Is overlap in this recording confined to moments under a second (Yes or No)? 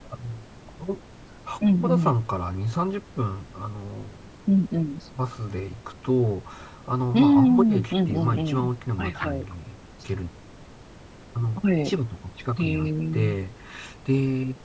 No